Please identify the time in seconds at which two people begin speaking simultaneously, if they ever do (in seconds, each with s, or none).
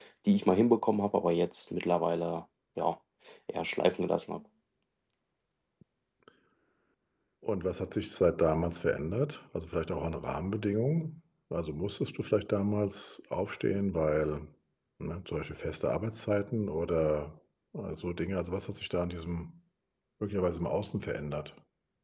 none